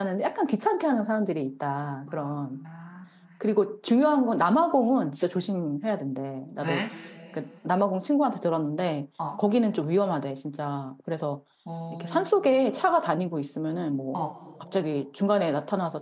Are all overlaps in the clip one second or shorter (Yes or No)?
Yes